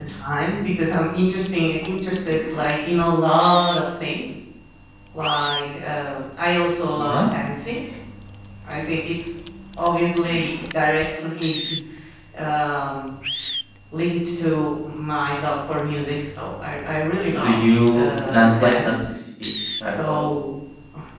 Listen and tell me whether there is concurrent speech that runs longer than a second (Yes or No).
Yes